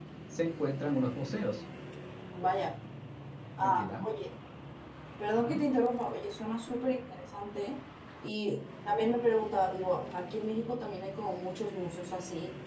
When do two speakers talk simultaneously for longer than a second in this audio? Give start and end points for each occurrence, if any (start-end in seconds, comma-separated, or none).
none